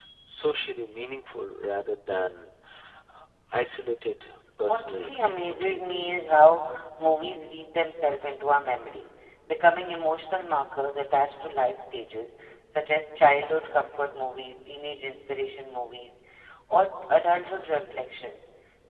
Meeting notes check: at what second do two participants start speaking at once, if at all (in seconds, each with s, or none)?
4.7 s